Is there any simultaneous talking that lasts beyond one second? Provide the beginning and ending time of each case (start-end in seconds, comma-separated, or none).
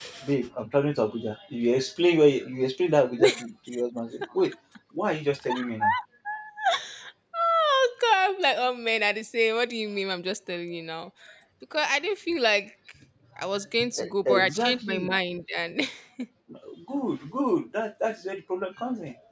14.0-15.2